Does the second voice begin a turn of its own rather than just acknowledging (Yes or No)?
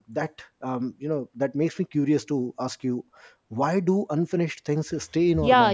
Yes